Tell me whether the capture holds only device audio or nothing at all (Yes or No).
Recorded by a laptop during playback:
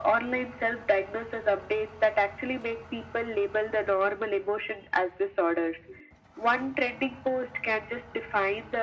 Yes